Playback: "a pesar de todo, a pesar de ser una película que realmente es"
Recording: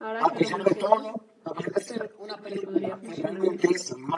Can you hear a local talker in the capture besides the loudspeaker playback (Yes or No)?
Yes